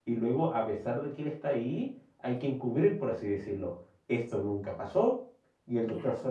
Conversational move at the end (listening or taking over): listening